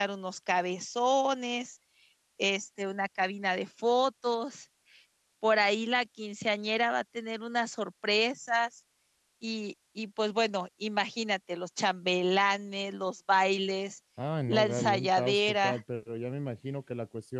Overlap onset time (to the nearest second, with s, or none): 14 s